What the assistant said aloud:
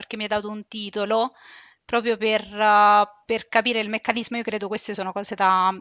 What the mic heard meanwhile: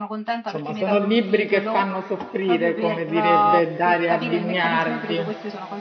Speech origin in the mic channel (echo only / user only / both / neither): both